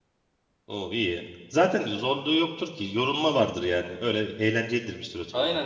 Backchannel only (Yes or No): No